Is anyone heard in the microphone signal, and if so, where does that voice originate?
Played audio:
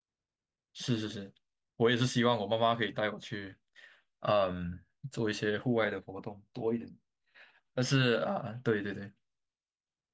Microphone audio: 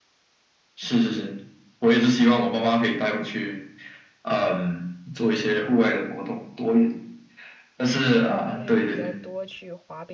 both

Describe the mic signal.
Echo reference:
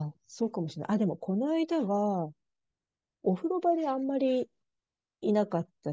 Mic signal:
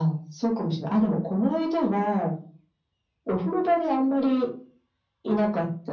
echo only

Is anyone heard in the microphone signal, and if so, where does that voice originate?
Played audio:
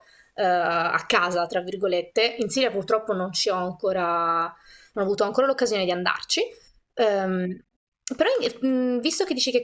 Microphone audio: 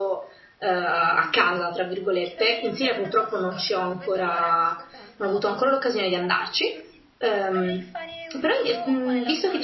both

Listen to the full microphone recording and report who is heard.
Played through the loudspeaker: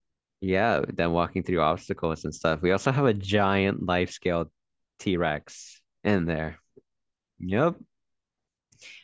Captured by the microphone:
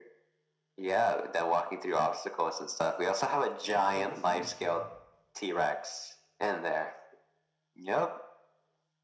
both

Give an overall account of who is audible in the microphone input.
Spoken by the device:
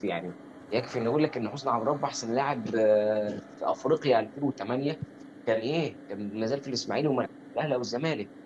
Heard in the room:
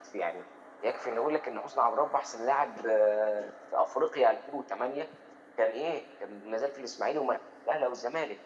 echo only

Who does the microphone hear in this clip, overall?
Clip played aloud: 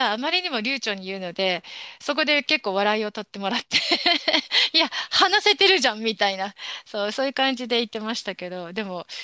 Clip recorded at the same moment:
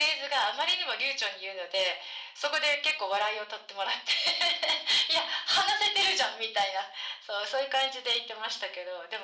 echo only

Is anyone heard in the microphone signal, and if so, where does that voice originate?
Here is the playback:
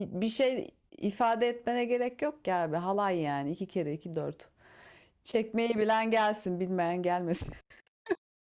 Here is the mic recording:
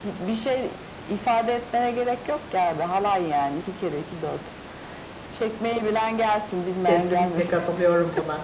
both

